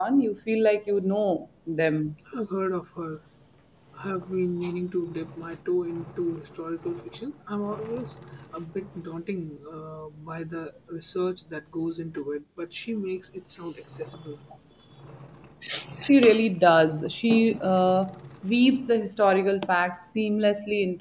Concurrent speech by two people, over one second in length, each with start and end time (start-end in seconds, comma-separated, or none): none